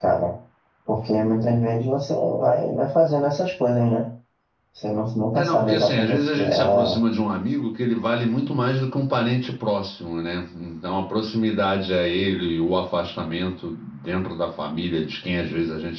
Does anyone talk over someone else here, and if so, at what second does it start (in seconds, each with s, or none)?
5.4 s